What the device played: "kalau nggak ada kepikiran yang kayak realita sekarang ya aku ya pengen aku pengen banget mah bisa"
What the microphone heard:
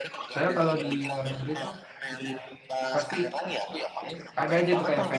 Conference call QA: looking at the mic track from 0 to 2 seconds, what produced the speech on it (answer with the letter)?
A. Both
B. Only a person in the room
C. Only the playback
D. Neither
A